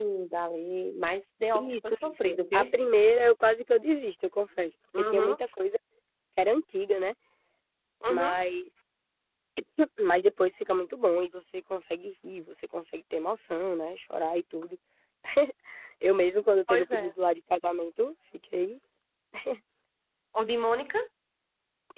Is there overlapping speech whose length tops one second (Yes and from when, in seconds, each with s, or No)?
Yes, from 1.5 s